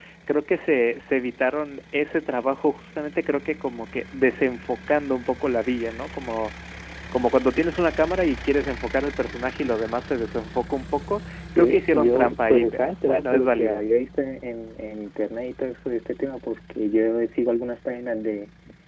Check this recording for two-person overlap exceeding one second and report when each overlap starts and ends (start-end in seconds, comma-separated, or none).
11.6-13.8